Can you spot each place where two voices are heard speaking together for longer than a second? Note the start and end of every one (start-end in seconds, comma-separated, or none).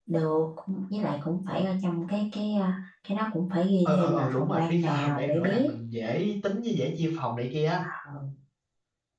3.9-5.7